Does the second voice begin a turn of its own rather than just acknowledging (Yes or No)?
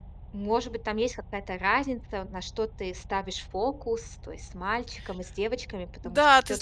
Yes